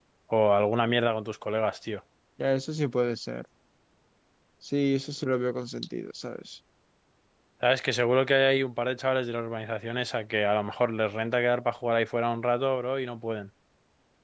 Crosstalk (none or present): none